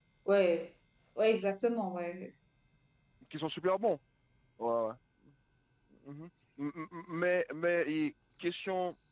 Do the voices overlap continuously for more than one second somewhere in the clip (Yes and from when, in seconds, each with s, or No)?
No